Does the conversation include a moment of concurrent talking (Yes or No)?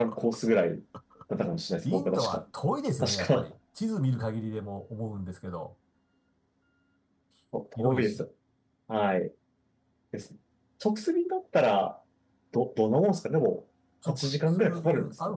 Yes